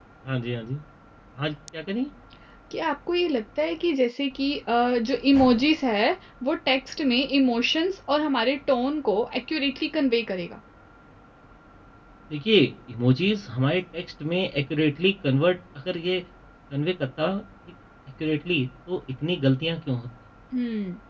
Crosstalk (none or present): none